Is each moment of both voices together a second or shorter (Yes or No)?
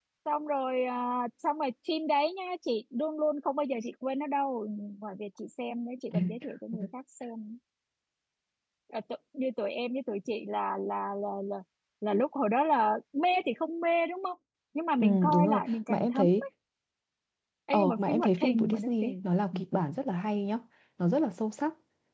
No